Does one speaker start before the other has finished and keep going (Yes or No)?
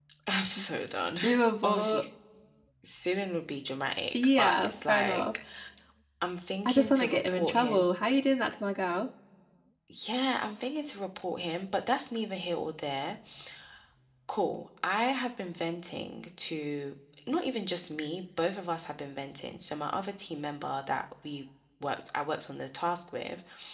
Yes